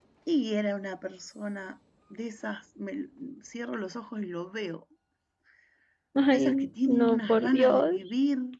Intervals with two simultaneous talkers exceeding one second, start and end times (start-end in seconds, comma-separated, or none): 6.3-8.0